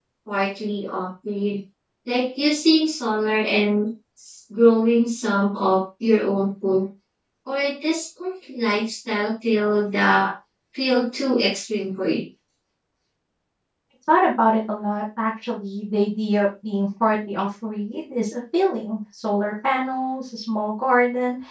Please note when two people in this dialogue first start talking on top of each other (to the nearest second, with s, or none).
none